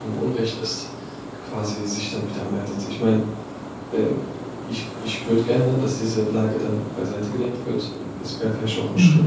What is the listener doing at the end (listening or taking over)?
listening